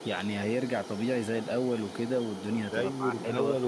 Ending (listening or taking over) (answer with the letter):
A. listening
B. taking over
B